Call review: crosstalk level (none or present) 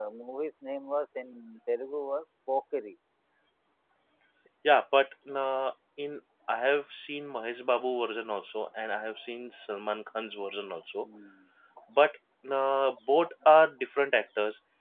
none